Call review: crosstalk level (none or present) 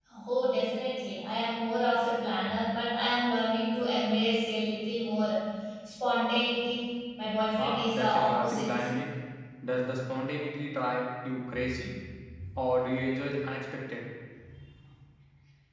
present